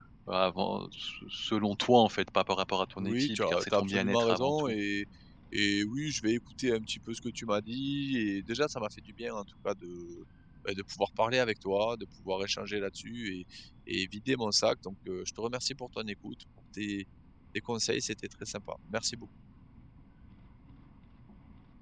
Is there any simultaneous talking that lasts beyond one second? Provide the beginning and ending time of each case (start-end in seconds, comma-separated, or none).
3.0-4.7